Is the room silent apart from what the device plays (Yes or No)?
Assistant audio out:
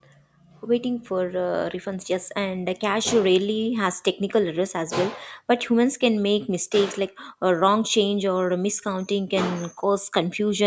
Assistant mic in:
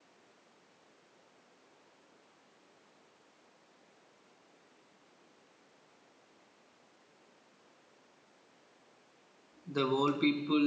No